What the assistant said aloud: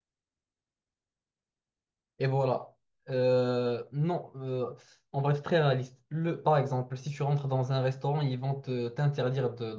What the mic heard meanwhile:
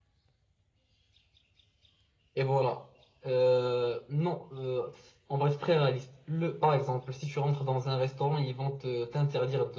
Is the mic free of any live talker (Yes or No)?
Yes